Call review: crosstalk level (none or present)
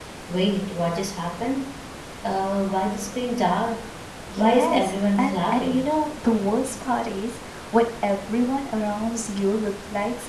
present